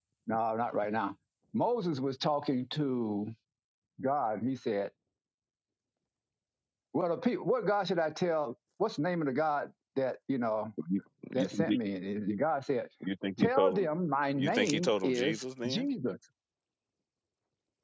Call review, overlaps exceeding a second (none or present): present